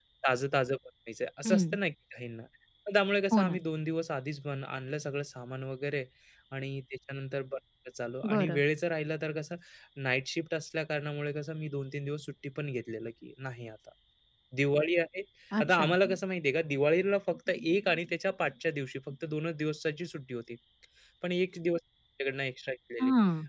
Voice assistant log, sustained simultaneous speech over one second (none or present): none